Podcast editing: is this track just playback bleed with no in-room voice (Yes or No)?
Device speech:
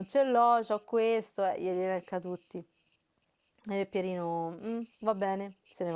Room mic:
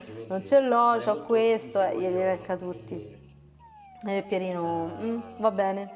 No